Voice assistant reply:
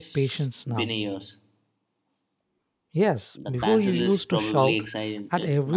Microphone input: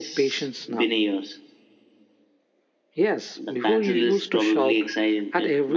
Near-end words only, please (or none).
none